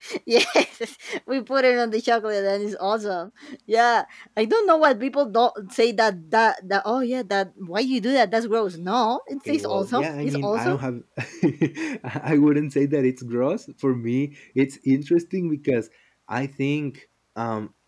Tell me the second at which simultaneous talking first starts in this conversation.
9.5 s

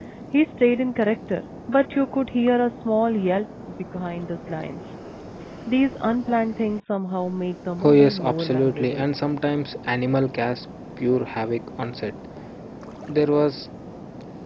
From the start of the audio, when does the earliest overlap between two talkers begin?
7.8 s

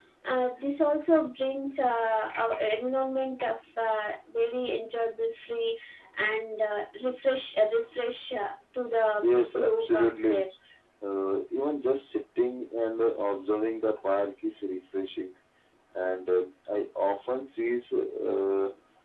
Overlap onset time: 9.2 s

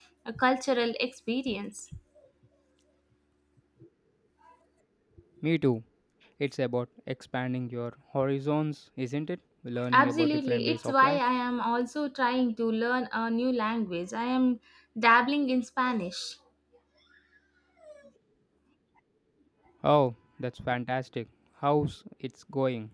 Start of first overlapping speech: 9.9 s

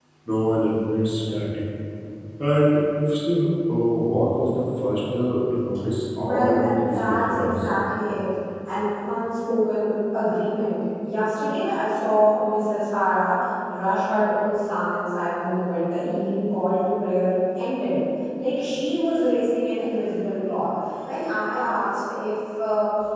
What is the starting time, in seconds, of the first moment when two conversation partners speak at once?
6.2 s

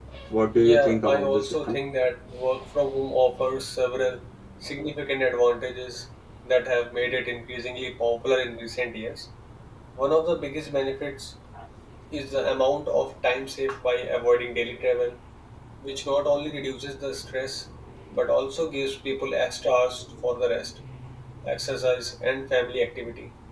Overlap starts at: 0.5 s

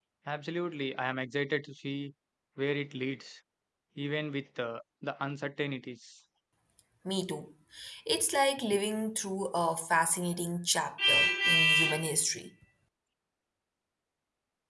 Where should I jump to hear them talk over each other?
none

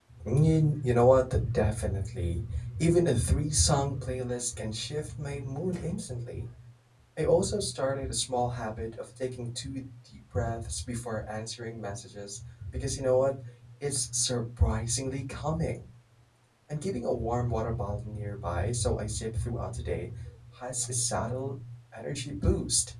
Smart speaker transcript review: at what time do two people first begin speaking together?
none

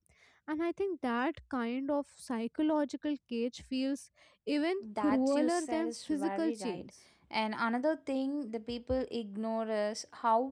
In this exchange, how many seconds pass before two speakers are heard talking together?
4.8 s

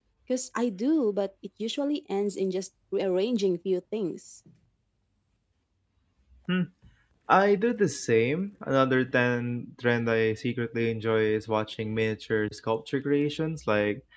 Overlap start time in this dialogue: none

